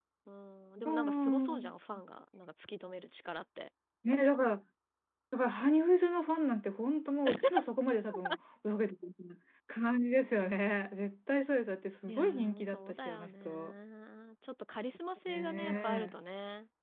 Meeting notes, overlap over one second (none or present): present